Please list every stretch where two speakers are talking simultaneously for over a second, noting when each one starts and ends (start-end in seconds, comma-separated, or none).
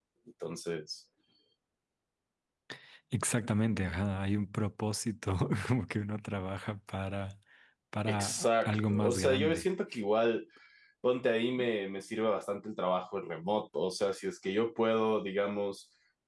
8.1-9.6